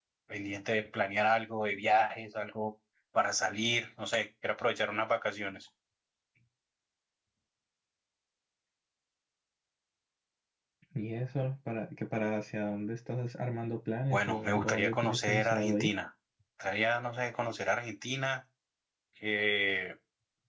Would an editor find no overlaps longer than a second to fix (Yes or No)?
No